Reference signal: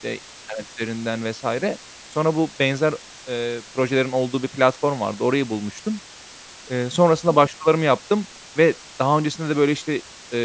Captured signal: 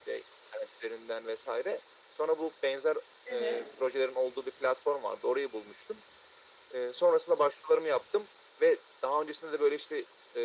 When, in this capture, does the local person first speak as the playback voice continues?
3.2 s

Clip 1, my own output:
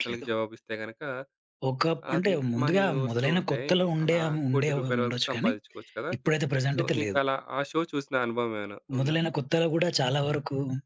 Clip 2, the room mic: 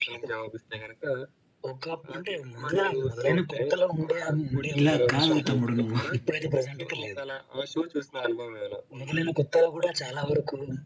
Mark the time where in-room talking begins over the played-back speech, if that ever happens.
4.8 s

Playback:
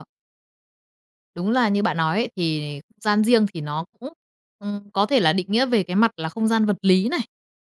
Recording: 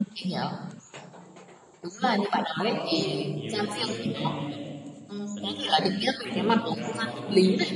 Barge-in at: 2.7 s

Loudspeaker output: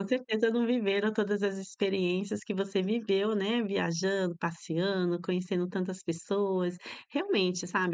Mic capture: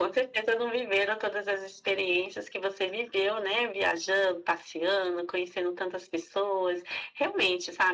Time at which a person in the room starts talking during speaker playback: none

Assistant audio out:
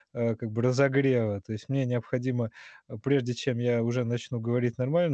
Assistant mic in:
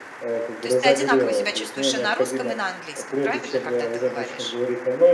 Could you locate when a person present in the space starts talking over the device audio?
0.6 s

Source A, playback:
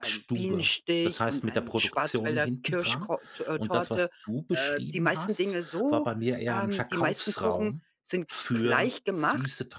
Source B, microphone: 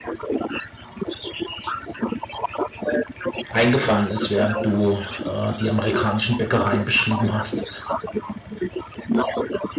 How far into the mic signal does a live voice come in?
3.5 s

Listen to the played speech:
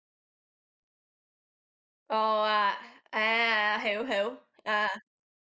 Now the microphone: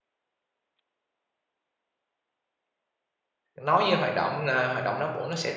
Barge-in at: 3.6 s

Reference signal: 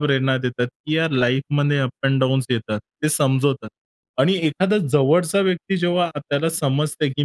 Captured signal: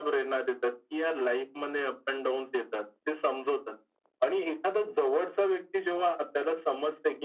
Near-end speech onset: none

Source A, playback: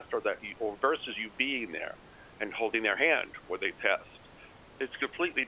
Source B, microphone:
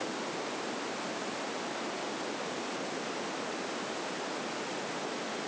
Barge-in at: none

